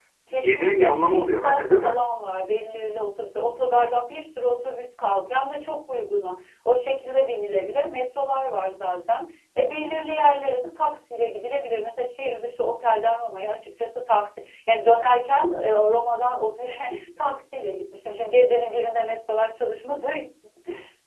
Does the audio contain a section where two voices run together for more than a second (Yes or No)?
Yes